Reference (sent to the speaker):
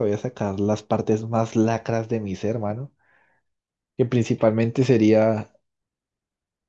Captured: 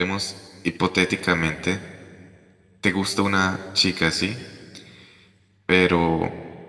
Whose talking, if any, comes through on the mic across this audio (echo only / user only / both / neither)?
user only